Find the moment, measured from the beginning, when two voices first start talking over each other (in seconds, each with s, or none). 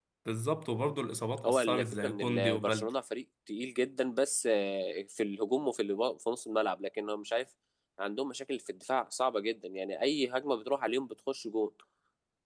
1.4 s